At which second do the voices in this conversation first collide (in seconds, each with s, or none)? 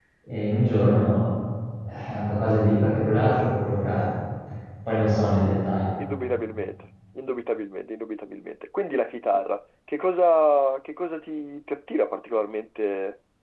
none